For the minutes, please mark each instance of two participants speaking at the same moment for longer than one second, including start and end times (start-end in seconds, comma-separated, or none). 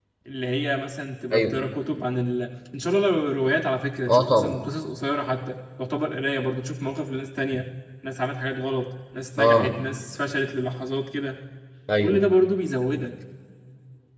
none